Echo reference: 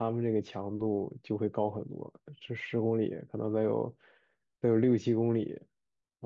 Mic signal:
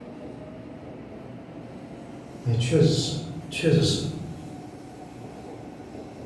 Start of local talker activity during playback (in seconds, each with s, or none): 2.4 s